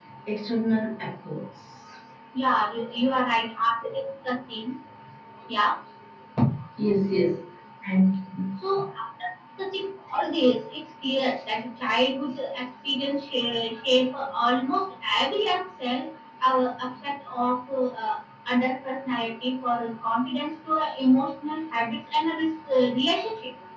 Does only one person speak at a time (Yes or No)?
Yes